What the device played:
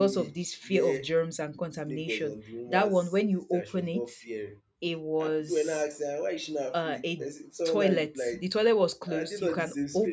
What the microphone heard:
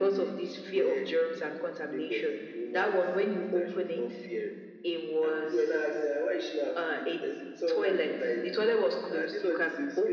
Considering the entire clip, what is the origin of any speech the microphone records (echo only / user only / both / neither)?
echo only